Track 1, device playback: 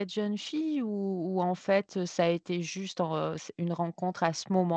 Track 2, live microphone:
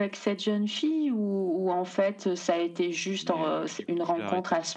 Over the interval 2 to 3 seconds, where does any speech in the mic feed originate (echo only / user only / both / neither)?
echo only